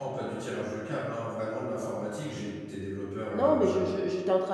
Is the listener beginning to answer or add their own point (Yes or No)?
Yes